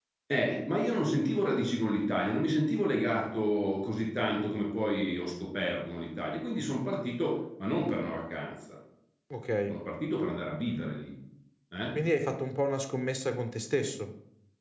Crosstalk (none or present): none